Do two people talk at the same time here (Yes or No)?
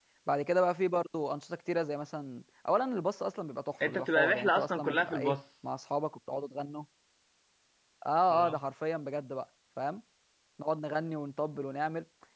Yes